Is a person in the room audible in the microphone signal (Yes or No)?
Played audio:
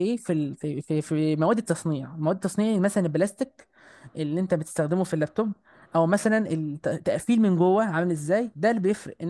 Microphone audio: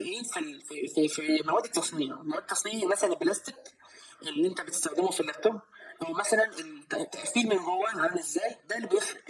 No